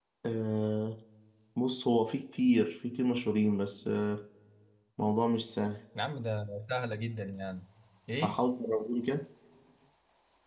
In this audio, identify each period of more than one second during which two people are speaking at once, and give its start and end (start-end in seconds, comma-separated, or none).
none